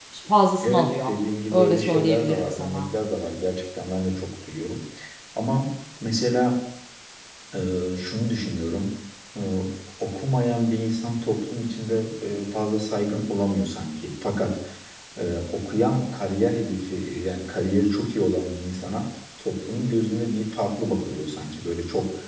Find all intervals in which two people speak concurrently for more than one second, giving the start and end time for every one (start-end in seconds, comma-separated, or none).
1.5-2.9